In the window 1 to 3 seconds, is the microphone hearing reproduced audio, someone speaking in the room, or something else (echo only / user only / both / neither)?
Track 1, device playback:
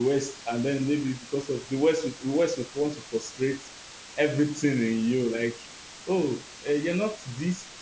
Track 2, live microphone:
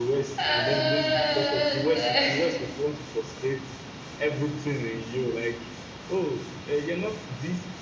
both